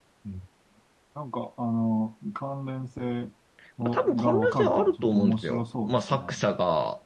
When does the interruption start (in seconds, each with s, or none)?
3.8 s